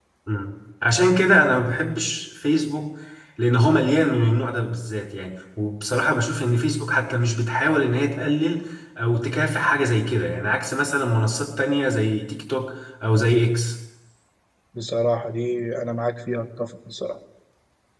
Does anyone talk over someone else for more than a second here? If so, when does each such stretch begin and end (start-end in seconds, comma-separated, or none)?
none